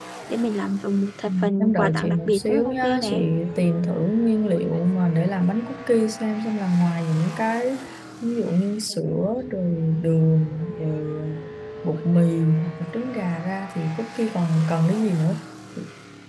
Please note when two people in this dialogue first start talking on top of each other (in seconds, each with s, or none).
1.2 s